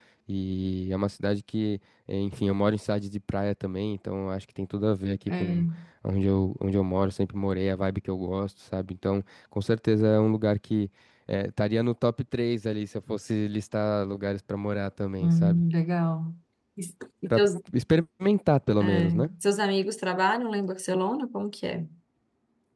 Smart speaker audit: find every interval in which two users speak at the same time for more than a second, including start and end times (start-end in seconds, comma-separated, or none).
none